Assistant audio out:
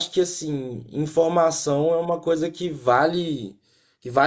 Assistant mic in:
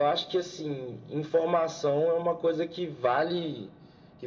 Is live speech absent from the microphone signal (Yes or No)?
Yes